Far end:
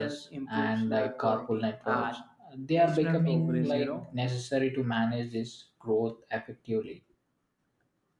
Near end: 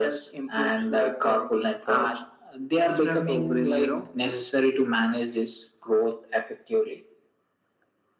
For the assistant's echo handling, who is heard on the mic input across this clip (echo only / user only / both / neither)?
echo only